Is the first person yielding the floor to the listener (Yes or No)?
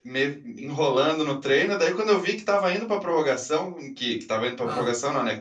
No